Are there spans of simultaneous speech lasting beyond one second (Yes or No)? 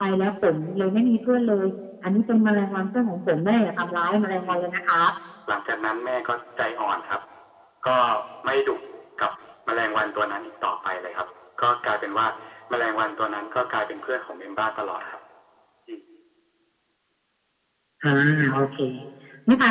No